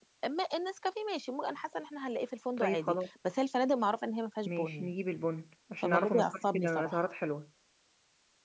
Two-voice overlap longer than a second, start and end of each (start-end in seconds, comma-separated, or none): 5.8-7.0